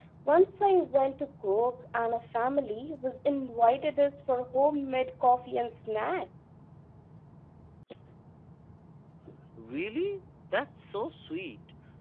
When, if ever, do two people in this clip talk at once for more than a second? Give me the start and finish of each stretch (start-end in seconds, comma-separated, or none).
none